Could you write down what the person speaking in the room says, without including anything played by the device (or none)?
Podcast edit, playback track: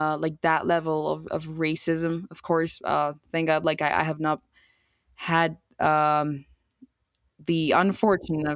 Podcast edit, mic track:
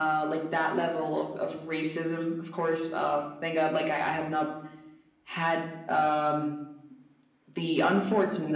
none